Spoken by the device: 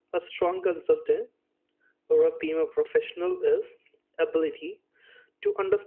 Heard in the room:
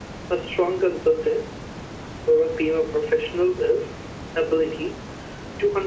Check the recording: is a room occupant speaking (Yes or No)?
No